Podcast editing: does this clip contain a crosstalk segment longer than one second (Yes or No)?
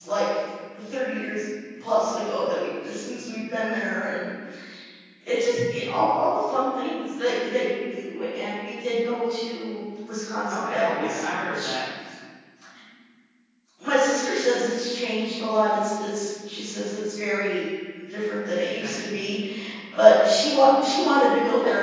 Yes